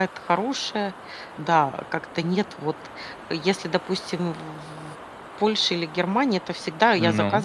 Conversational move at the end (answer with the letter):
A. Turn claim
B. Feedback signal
B